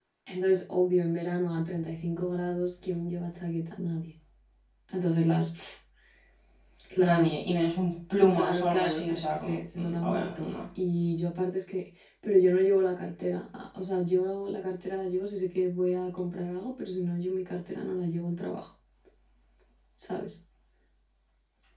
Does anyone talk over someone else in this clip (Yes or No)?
Yes